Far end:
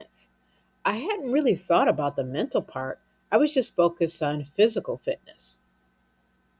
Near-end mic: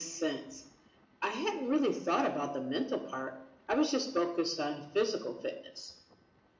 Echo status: present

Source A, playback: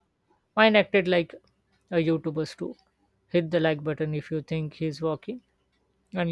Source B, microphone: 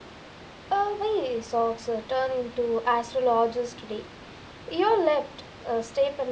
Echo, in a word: none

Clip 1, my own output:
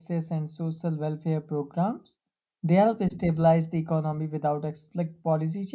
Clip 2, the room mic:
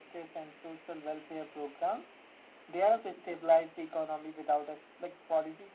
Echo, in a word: present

